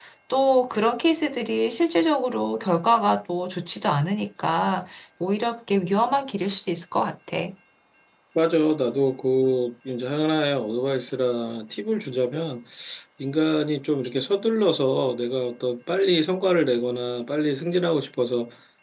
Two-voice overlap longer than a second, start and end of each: none

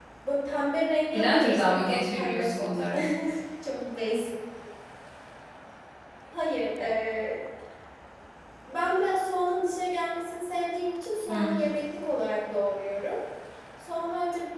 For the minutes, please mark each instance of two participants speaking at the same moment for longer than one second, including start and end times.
1.1-2.8

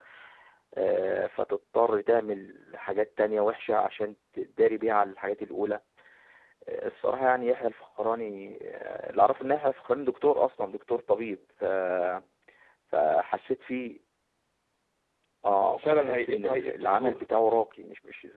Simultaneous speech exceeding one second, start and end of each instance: 15.6-17.2

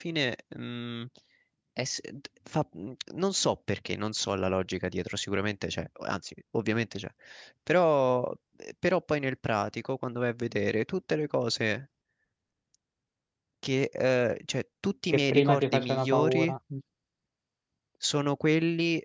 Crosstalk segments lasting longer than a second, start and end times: 15.1-16.5

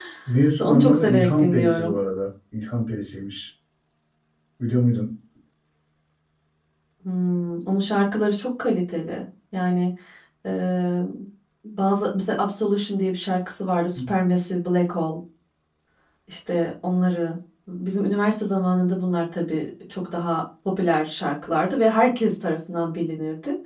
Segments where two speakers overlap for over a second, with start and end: 0.6-2.0

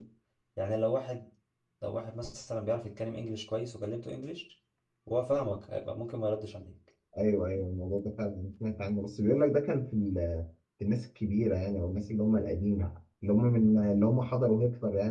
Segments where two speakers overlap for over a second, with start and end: none

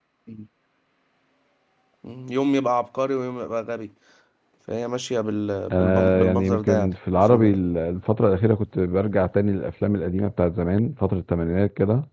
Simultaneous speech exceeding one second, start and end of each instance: 5.7-7.6

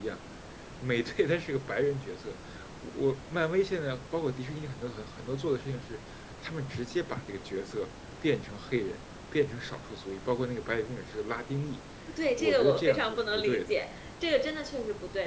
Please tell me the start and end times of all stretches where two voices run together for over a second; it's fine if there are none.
12.4-13.7

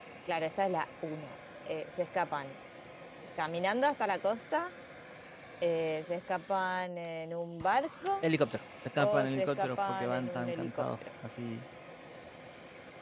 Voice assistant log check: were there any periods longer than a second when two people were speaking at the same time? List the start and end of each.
9.0-10.8

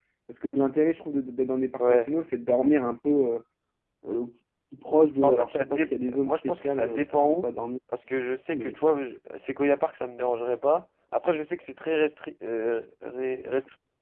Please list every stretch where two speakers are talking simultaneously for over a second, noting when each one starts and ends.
5.2-7.5

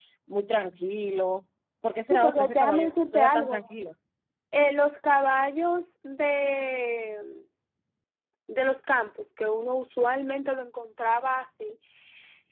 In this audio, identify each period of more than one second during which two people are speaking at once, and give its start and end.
2.1-3.6

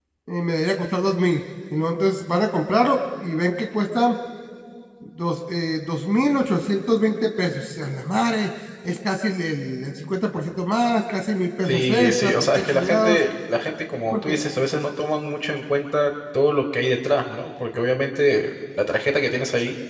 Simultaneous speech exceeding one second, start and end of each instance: 11.7-13.2

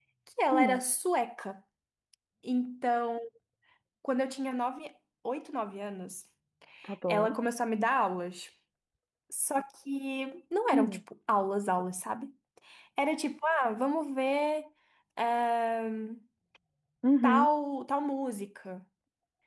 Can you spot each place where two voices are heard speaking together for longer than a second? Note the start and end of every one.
none

